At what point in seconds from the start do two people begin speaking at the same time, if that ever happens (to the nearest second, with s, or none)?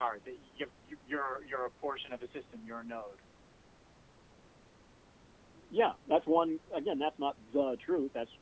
none